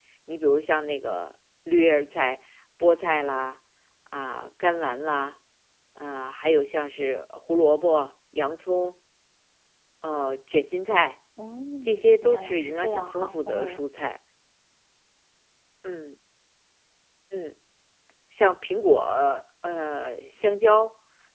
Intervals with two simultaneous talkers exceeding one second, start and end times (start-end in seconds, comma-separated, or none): 11.8-13.8